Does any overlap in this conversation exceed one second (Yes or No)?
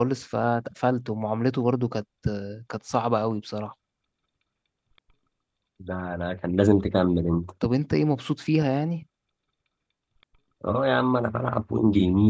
No